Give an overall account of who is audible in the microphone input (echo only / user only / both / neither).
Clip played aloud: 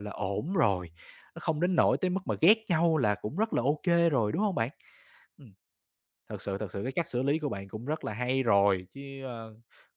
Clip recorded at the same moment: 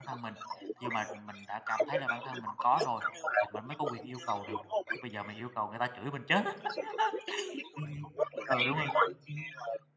both